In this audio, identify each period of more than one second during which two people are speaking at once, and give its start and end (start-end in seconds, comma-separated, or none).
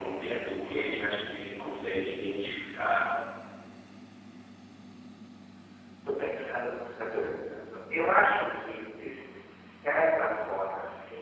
none